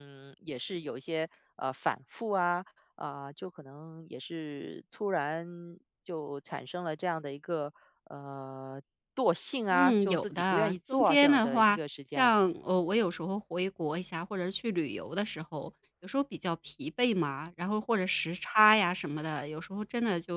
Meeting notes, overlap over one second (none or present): present